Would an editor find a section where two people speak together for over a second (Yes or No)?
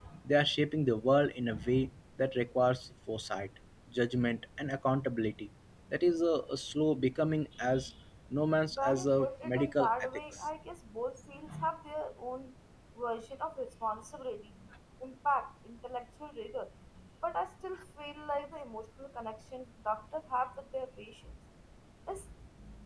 Yes